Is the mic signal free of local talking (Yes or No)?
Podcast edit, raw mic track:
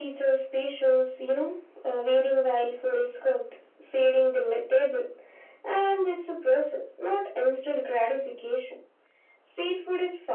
Yes